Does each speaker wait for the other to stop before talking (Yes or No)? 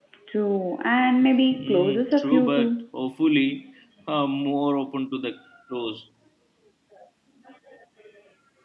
No